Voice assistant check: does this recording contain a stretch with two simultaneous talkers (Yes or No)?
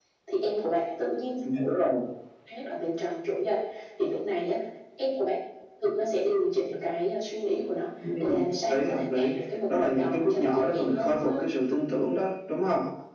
Yes